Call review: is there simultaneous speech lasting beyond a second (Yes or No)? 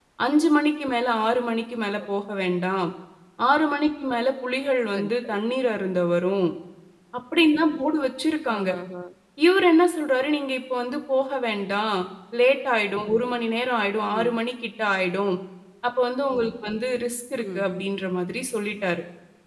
No